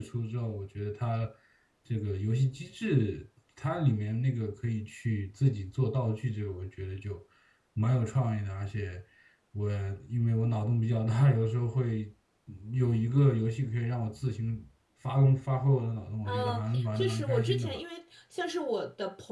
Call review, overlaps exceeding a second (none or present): present